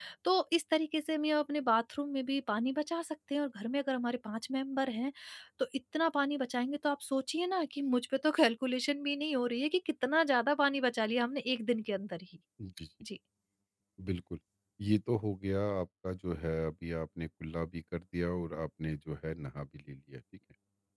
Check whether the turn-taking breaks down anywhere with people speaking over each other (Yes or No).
No